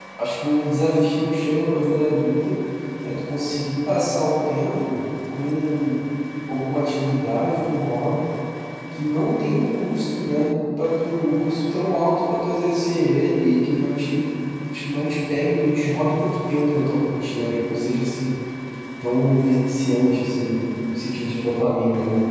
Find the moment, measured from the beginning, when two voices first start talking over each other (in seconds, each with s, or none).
none